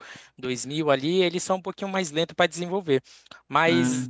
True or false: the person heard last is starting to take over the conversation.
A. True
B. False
B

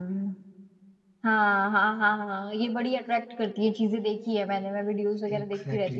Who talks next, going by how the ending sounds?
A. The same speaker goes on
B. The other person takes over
A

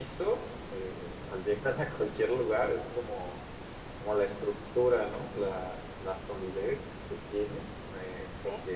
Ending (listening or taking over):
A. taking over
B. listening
B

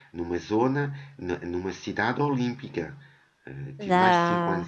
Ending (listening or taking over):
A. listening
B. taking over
A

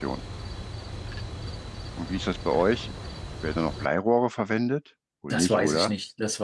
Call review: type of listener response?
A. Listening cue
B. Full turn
B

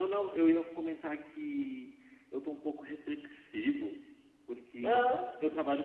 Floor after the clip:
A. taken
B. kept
B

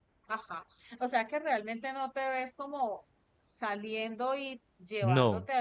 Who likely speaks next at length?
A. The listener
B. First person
B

